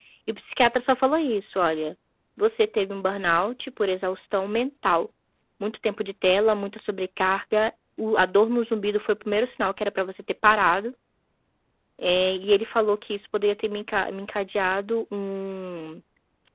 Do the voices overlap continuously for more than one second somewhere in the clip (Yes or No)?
No